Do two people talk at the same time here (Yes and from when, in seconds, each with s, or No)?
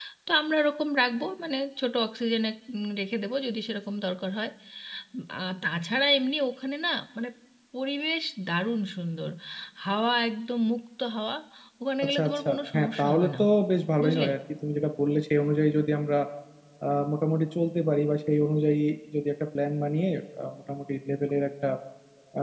Yes, from 12.0 s